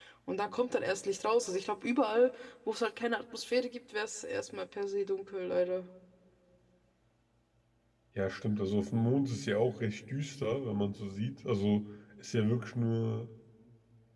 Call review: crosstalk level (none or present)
none